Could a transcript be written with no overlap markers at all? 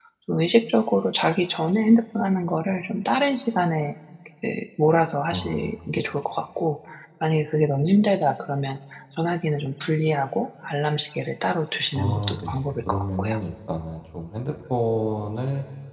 No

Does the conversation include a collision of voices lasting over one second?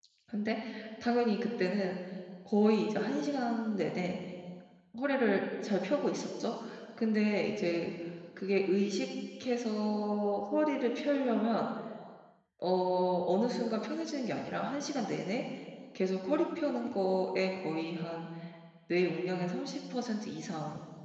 No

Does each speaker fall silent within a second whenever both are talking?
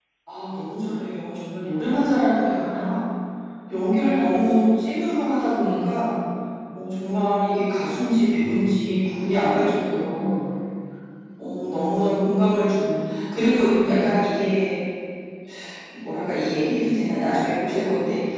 Yes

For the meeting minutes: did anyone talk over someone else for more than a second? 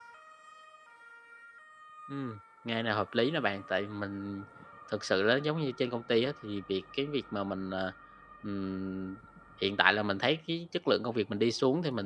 No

